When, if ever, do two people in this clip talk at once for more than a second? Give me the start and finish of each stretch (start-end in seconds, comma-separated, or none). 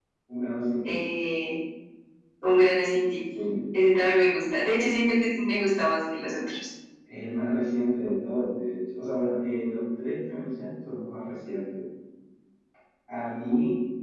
none